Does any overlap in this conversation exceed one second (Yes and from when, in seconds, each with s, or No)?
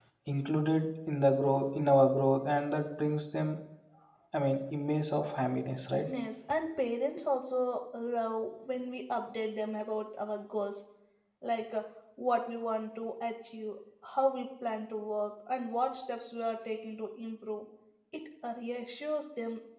No